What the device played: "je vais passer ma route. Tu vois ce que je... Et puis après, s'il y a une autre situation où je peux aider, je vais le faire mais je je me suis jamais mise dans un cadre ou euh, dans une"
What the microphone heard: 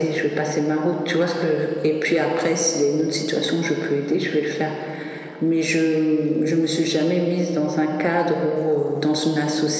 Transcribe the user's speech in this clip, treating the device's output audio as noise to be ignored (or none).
none